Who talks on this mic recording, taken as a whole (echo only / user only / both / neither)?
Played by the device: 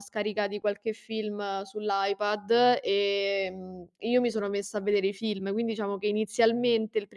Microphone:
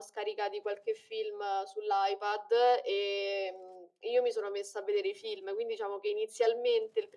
echo only